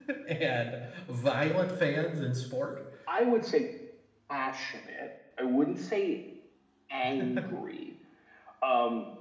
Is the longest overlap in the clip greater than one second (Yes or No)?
No